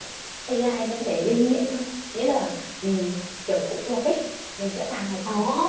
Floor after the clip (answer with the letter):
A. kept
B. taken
B